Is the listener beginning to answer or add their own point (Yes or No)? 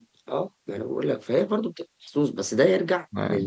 No